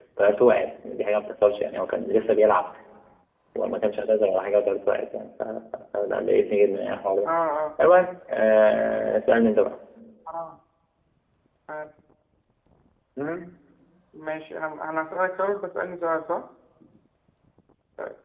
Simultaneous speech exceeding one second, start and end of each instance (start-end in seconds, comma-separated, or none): none